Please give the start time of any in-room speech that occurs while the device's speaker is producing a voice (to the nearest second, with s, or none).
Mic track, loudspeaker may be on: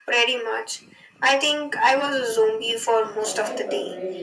3 s